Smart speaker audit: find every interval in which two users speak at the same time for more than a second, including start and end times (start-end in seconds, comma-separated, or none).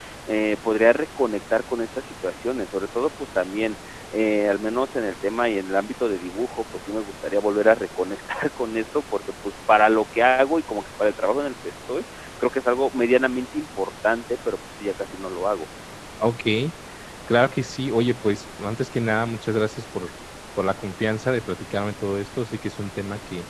none